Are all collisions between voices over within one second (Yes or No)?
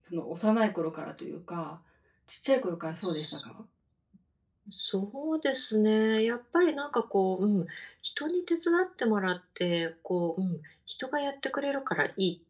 Yes